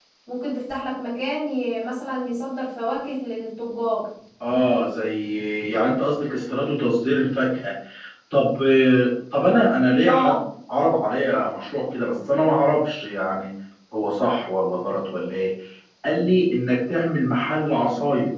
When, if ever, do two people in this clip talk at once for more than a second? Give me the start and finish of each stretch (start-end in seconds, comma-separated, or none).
none